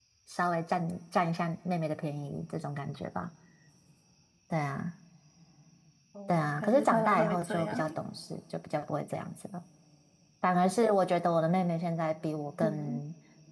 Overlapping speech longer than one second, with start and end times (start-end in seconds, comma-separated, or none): 6.3-7.9